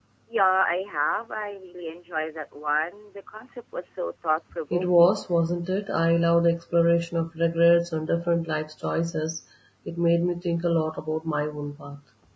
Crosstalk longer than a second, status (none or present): none